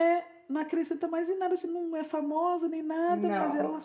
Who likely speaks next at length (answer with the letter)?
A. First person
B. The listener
A